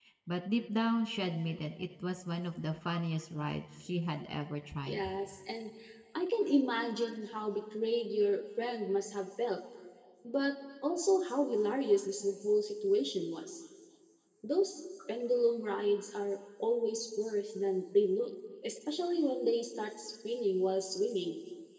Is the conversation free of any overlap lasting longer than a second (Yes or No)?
Yes